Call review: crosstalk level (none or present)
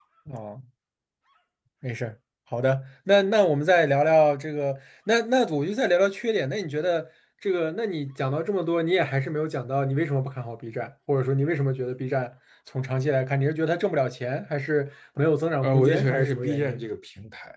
present